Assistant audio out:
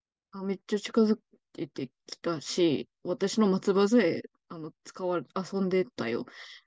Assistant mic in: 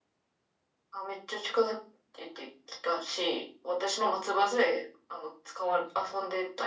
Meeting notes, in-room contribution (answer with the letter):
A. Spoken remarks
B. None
B